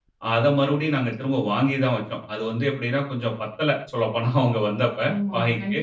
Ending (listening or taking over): taking over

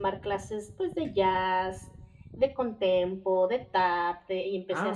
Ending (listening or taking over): taking over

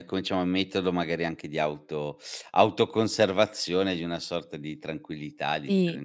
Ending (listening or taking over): taking over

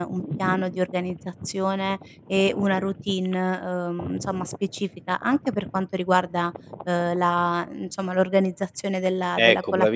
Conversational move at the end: taking over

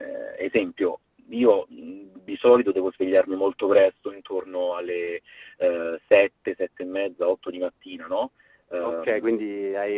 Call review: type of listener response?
taking over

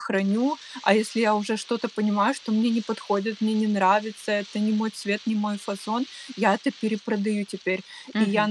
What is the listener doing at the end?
listening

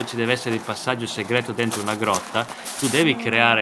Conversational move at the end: listening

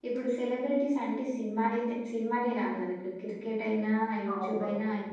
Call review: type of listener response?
listening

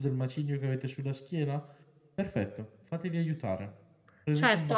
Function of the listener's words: taking over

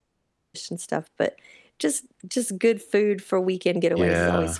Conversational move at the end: taking over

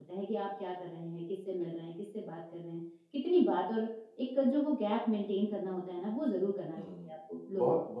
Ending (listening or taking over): taking over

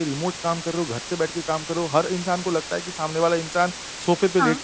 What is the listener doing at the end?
listening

